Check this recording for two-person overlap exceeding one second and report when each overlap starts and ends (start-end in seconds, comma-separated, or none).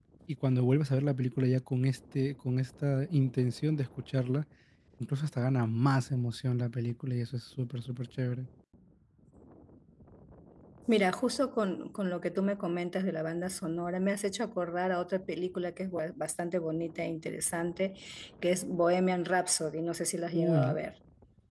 none